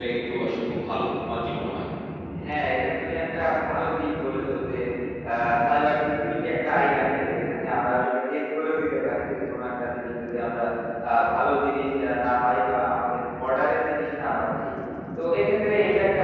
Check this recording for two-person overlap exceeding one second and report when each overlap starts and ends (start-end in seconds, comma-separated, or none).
none